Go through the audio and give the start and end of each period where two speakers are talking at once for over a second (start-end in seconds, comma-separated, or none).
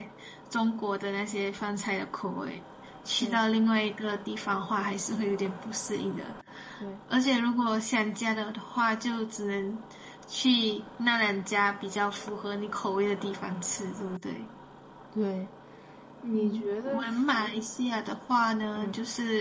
16.3-17.6